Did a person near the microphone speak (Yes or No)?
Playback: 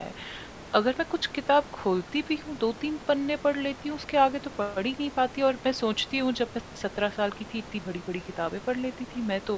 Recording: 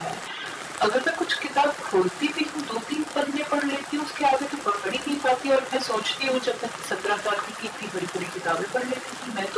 No